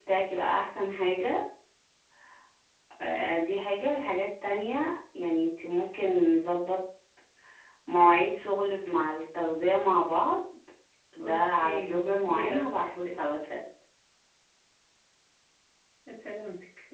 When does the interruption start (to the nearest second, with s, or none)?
11 s